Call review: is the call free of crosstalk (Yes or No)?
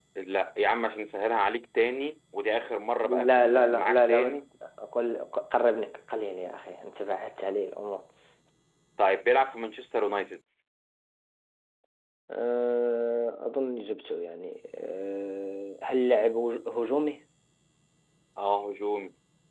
No